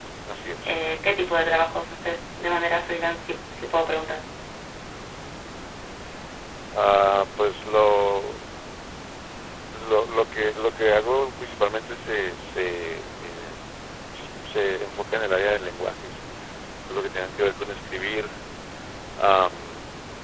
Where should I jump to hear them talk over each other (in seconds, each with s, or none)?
none